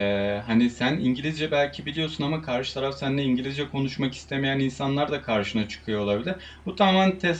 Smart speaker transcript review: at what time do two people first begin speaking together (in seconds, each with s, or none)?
none